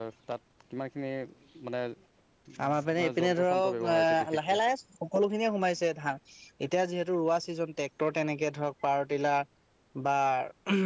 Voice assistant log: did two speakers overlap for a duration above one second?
Yes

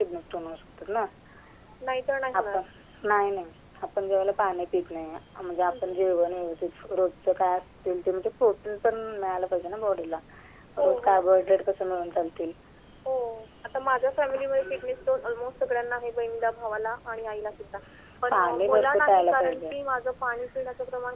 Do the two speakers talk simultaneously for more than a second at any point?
Yes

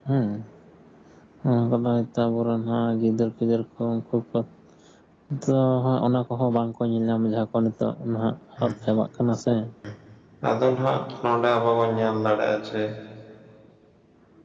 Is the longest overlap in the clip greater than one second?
No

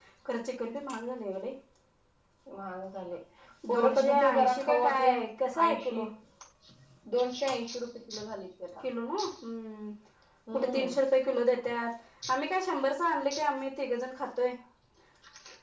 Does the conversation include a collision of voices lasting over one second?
Yes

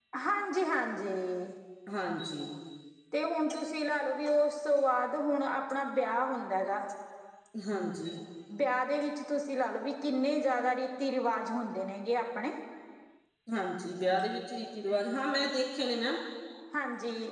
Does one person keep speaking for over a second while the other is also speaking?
No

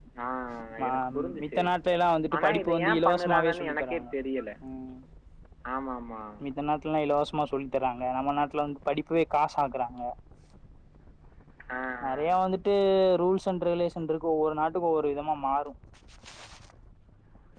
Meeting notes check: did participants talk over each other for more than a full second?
Yes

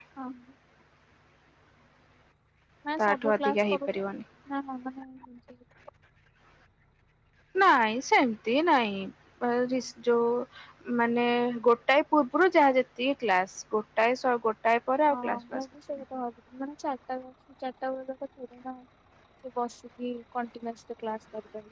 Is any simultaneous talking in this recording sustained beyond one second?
Yes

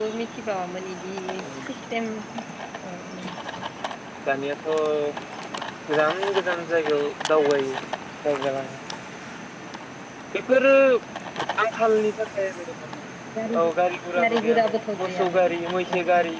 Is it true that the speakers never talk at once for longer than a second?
No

